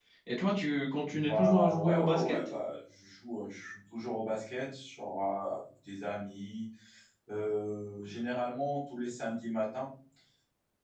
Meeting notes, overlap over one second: present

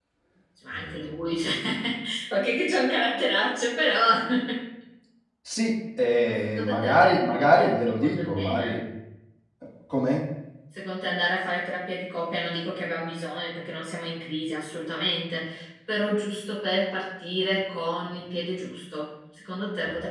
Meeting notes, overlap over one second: present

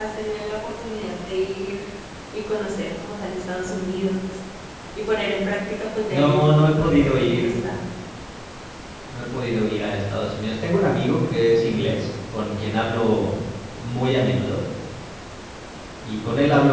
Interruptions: present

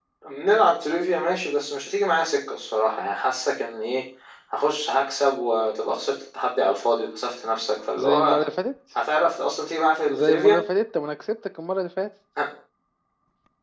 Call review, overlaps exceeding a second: none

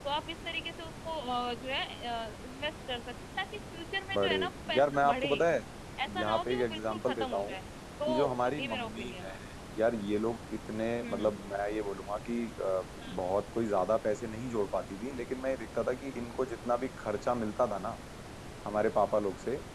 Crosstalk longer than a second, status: present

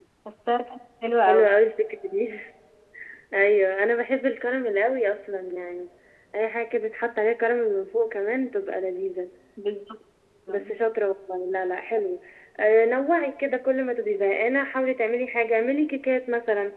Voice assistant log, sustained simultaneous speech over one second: none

